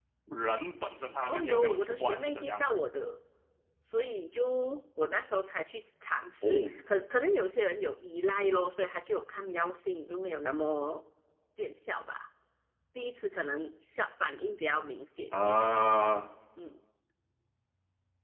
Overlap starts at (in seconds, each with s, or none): 1.3 s